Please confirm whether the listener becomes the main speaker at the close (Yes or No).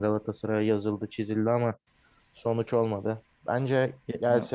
No